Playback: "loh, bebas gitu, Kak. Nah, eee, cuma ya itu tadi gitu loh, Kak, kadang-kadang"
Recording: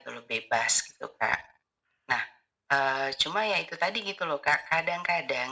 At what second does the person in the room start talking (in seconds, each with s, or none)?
none